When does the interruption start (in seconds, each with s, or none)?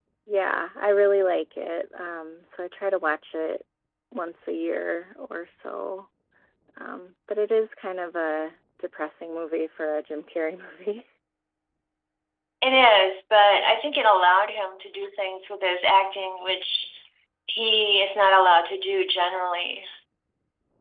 none